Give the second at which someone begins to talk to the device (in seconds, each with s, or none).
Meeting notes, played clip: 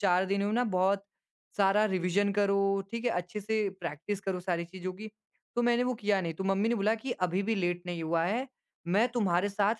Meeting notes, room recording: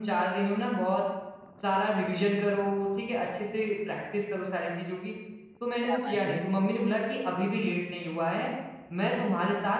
5.8 s